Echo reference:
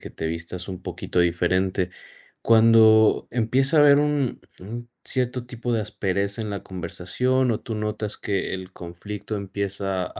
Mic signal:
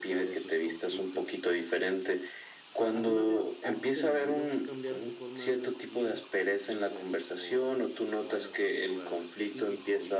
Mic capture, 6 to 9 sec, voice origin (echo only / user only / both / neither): both